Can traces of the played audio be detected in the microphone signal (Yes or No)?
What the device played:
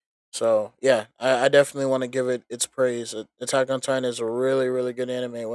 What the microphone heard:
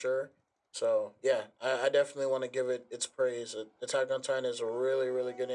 Yes